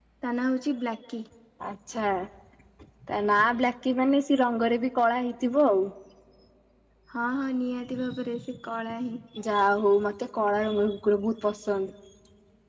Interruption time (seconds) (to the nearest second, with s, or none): none